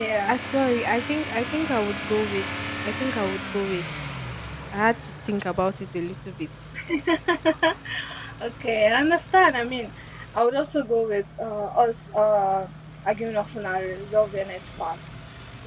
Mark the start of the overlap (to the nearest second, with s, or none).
none